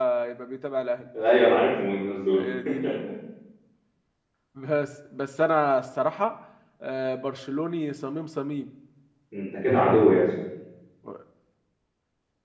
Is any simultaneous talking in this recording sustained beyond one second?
No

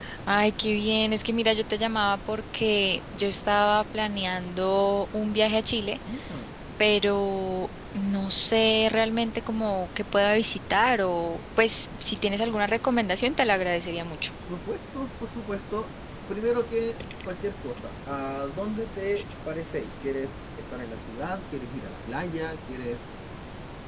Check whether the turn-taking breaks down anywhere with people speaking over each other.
No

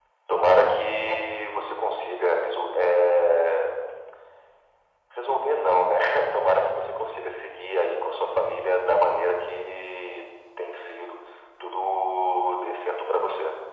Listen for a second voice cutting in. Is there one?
No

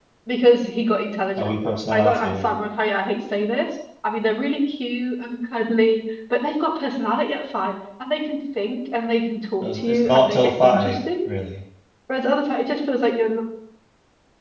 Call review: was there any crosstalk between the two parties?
Yes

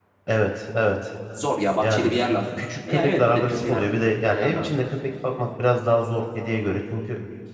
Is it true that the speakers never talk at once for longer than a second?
No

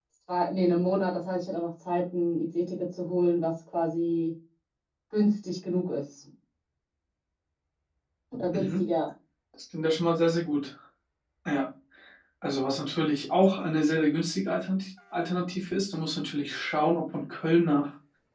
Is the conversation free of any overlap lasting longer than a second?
Yes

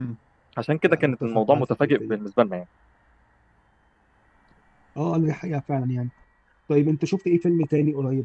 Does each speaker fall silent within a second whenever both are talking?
No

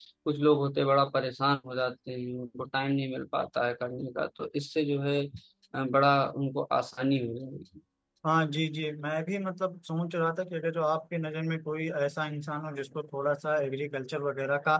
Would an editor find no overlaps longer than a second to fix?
Yes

